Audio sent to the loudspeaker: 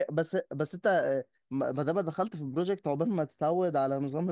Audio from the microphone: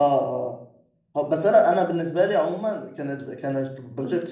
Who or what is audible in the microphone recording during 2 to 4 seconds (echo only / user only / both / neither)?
user only